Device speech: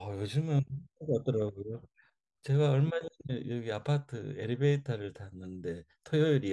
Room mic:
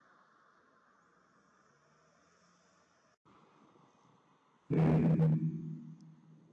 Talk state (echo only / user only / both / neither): user only